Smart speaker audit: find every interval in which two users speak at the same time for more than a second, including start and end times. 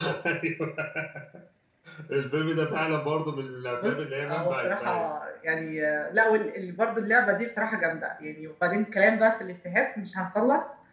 3.8-5.0

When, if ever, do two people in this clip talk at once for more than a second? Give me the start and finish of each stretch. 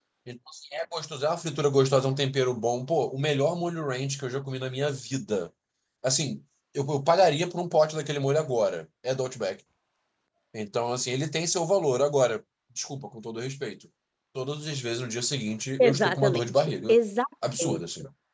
15.8-17.0

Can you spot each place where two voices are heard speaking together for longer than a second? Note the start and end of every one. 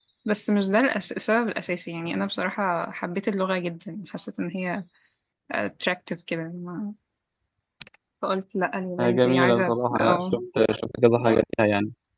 9.0-10.3

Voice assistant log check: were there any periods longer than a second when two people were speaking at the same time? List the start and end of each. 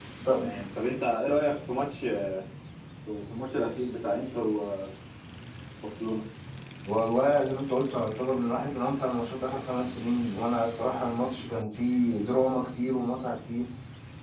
none

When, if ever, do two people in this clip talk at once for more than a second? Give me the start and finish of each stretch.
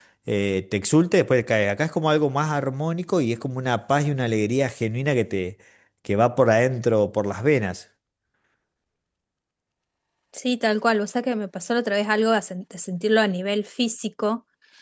none

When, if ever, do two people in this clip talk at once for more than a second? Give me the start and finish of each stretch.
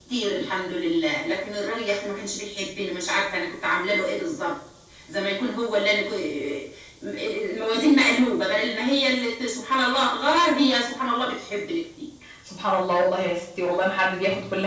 none

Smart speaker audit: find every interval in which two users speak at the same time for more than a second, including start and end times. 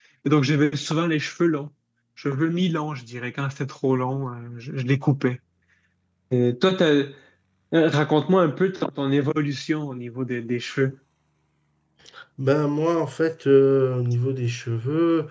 none

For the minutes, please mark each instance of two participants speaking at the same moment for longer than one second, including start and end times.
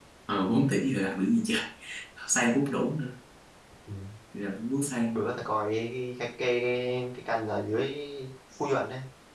none

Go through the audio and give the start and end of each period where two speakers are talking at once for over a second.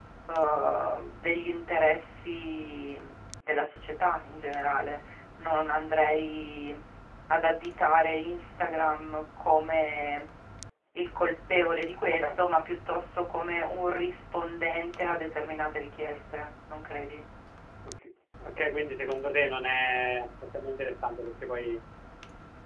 none

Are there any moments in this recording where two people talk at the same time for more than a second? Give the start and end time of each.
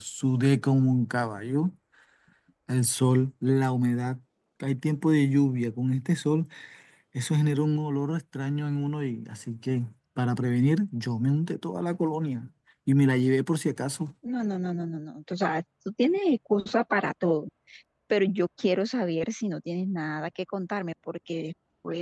none

